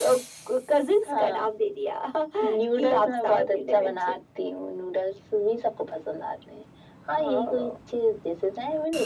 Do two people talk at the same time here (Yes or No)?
Yes